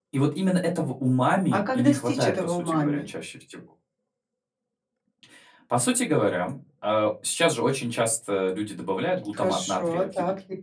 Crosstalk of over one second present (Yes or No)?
Yes